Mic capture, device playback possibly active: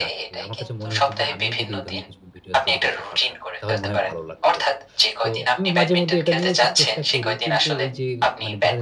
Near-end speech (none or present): present